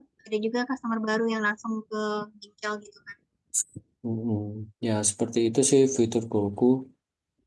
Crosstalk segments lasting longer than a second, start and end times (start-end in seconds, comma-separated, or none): none